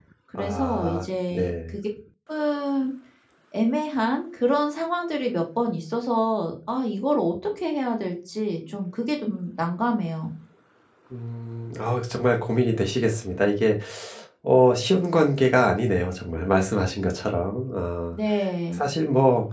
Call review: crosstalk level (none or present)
present